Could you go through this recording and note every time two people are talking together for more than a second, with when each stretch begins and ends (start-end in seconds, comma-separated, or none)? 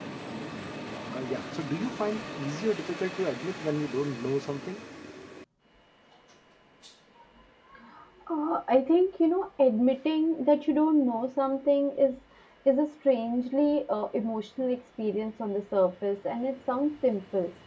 none